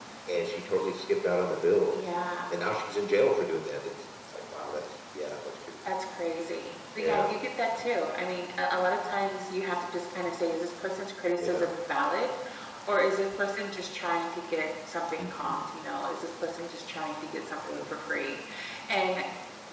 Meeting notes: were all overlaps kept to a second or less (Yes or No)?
Yes